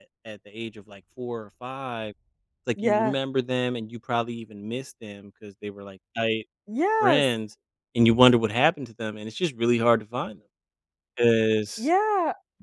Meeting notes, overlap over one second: none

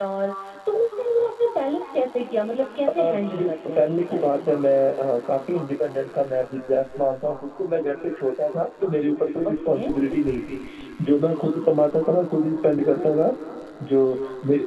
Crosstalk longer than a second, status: present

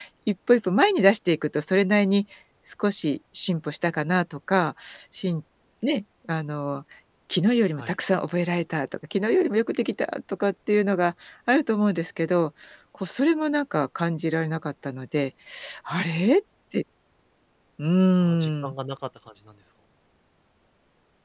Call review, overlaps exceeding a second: none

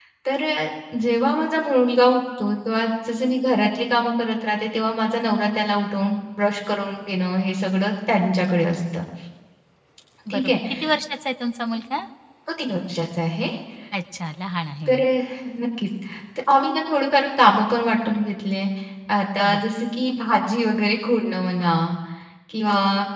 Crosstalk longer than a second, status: none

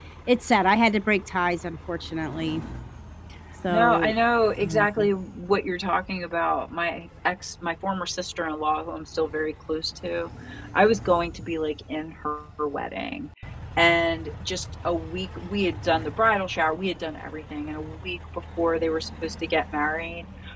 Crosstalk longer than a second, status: none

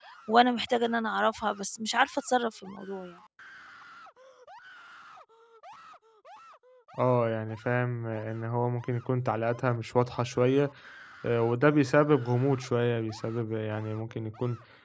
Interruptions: none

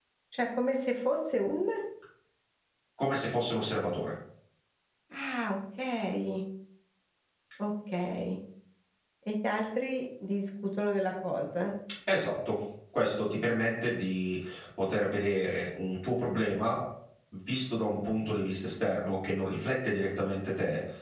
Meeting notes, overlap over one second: none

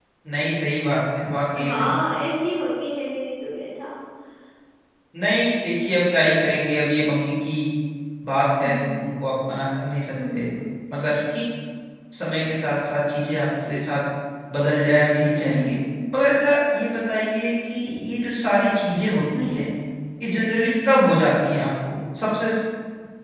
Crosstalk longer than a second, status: none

